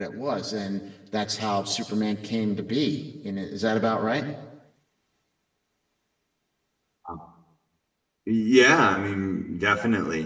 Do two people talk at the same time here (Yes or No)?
No